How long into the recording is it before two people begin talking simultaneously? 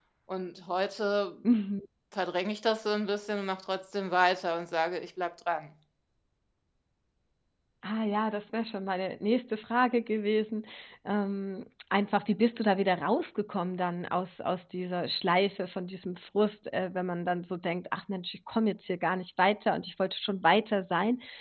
none

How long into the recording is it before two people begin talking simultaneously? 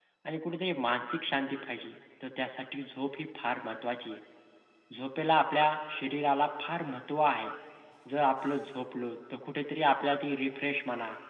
none

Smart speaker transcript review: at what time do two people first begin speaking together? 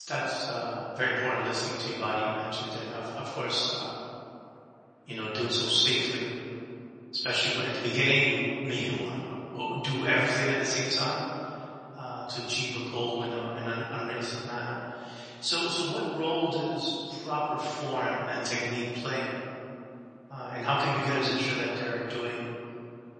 none

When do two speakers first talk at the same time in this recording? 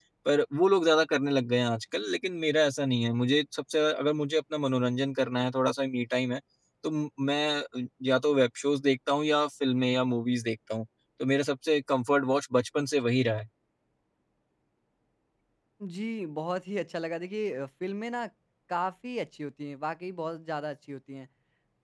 none

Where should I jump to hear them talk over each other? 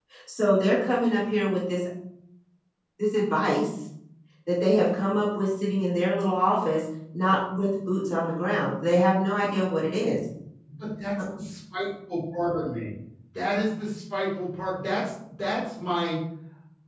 none

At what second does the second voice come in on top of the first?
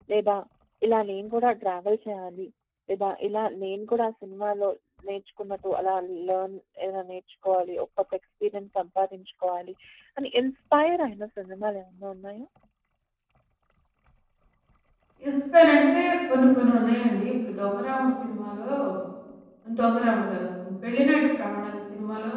none

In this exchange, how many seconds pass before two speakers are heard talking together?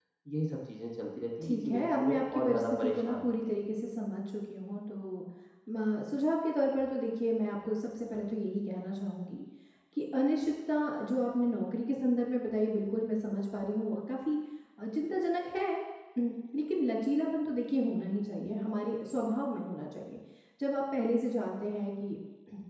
1.4 s

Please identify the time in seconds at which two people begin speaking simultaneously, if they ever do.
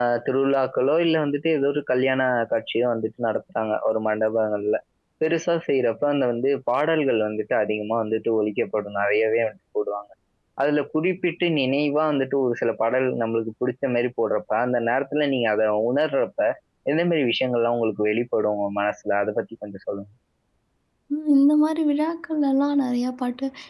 none

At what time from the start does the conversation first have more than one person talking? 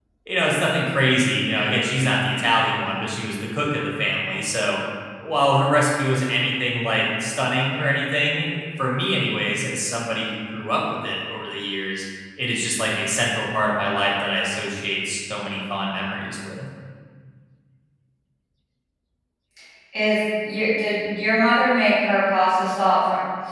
none

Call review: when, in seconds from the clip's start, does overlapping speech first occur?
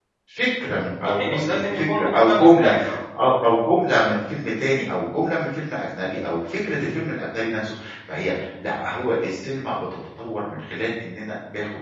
1.1 s

